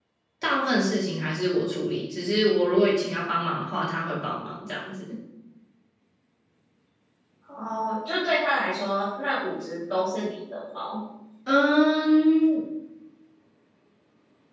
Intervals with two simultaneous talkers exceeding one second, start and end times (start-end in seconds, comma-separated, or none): none